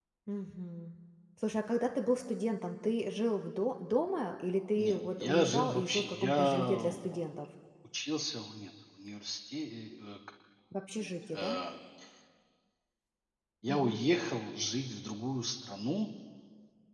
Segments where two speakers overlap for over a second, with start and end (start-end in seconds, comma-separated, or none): 4.8-7.2